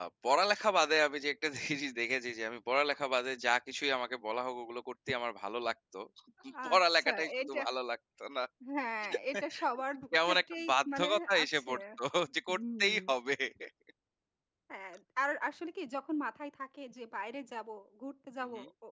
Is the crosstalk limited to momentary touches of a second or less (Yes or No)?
No